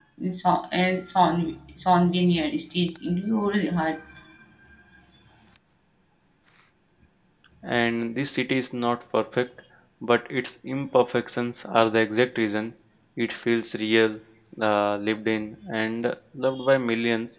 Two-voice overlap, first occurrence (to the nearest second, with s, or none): none